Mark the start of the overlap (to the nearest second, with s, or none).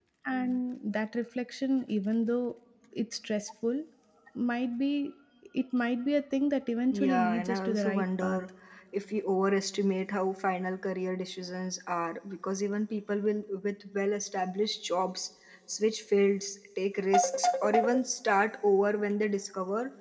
7 s